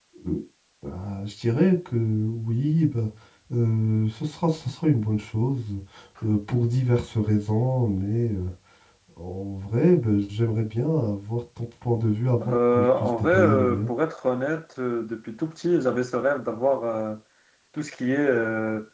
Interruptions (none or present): present